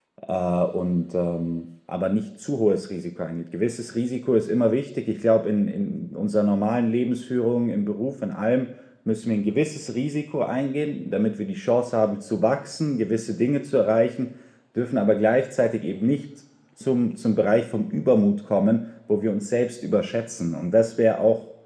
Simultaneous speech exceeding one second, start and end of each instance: none

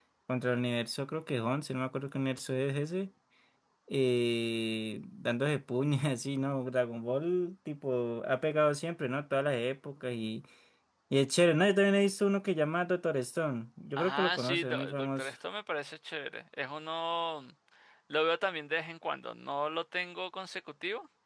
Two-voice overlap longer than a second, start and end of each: 14.0-15.3

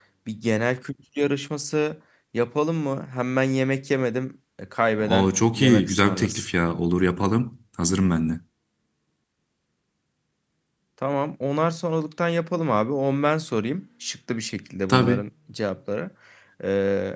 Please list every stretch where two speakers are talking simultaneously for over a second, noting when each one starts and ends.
5.1-6.5

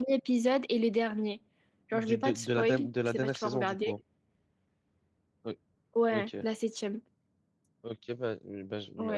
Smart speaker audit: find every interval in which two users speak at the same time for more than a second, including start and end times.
1.9-3.9

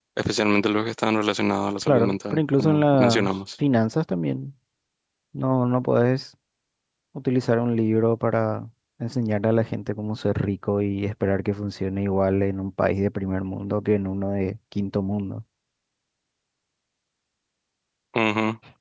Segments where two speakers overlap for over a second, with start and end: 1.8-3.4

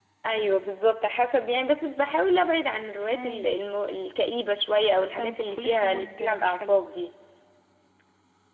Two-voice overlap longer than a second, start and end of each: 5.1-6.8

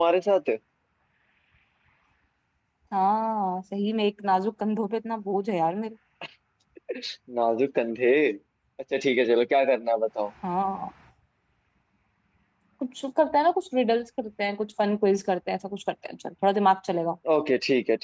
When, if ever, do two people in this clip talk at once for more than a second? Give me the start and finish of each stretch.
none

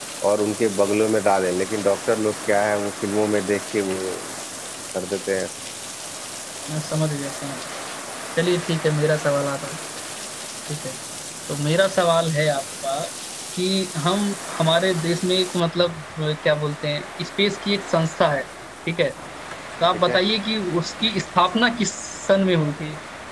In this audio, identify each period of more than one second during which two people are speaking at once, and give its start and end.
none

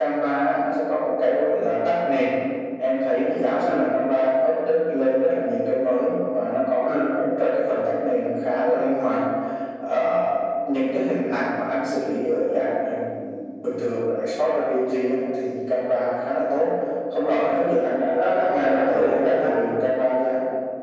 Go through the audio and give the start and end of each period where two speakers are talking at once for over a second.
18.1-19.6

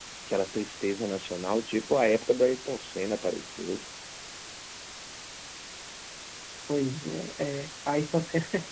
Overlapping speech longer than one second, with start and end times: none

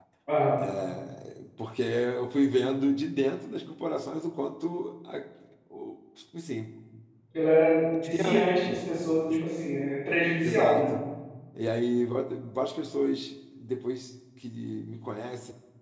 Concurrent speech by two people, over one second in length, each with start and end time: none

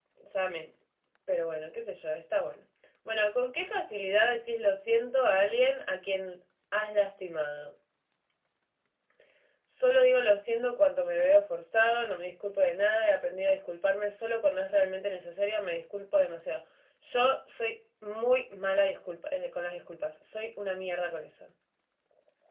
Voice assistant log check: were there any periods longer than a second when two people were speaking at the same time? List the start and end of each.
none

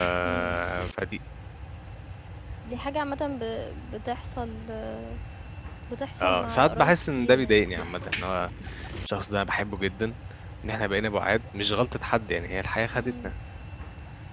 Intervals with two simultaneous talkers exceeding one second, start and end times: 6.2-7.6

